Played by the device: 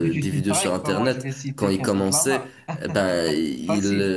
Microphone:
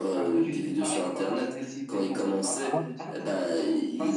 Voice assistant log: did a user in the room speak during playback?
Yes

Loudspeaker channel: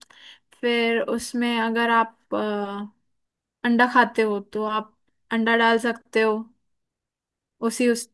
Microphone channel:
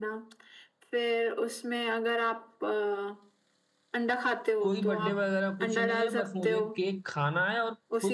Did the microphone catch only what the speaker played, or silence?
No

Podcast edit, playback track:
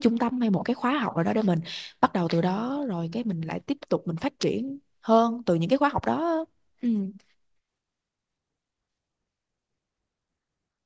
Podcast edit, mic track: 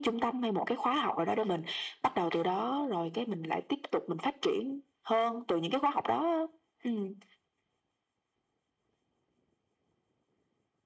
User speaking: No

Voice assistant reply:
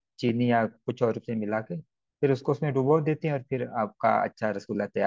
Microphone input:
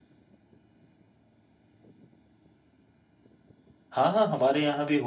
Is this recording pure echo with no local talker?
No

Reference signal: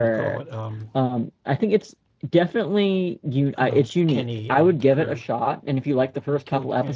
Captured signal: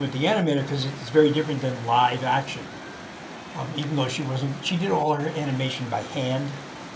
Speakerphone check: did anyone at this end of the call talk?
Yes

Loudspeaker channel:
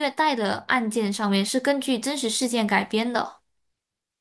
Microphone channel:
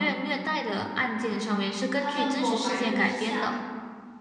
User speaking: Yes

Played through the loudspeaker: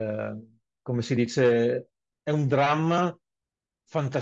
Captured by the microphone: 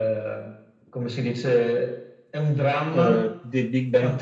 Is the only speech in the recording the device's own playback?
No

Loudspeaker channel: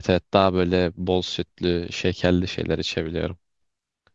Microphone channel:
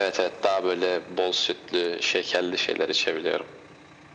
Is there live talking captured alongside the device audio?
No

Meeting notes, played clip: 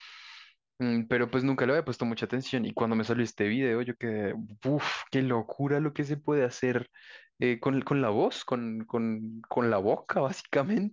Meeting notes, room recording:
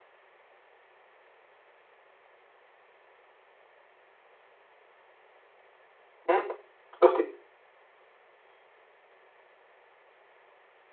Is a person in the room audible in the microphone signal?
Yes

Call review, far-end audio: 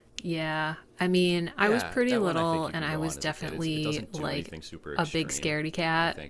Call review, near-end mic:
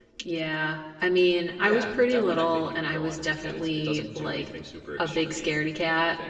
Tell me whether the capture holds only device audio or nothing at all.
Yes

